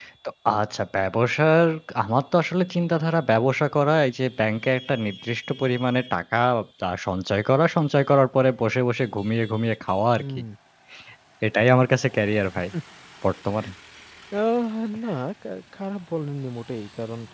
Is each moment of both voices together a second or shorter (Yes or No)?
Yes